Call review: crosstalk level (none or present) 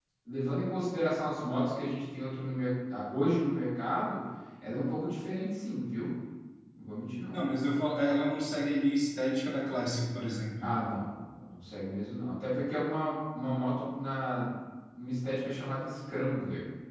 none